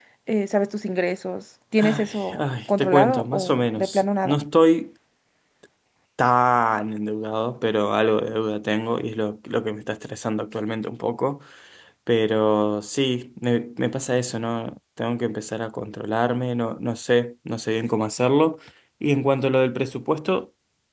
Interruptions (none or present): present